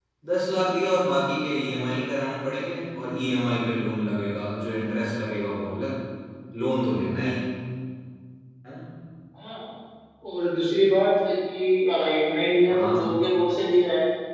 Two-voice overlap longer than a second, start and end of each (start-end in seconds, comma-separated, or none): none